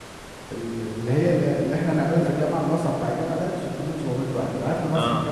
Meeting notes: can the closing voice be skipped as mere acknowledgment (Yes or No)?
Yes